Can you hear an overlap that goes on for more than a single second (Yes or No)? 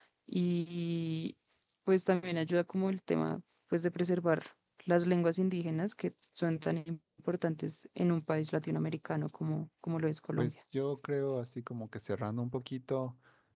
No